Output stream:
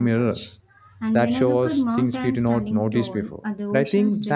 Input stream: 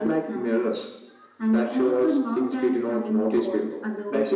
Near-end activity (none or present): none